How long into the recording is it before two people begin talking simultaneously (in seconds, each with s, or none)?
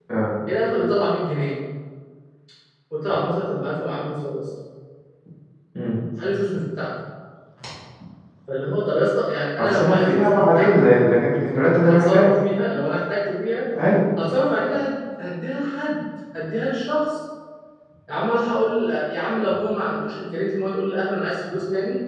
9.6 s